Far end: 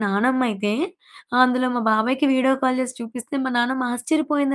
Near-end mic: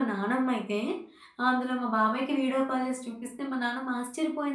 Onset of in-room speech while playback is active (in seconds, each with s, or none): none